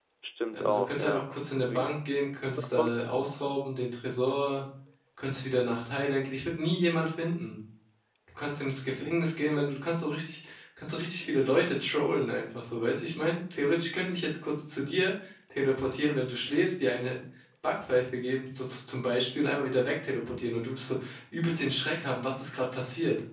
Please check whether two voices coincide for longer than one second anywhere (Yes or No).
Yes